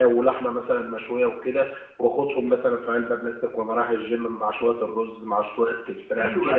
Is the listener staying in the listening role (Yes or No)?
No